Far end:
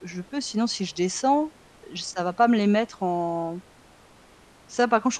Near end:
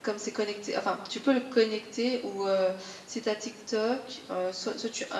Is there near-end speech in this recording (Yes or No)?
Yes